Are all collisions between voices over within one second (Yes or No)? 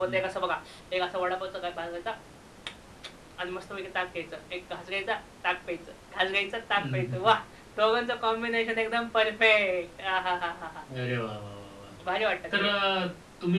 Yes